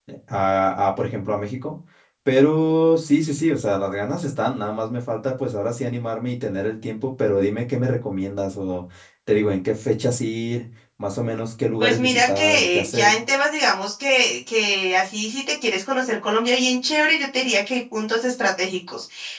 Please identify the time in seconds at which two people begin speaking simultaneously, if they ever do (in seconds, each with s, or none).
11.8 s